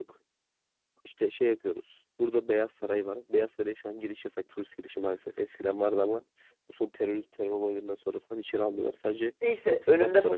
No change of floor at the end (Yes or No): No